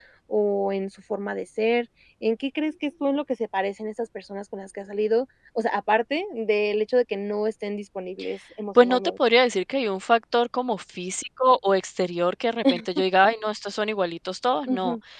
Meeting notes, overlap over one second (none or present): none